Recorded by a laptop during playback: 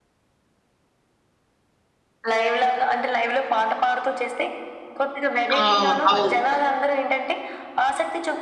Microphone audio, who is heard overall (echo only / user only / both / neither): both